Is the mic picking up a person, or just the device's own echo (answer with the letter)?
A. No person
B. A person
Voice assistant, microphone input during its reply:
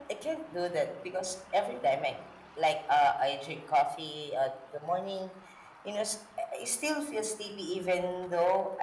A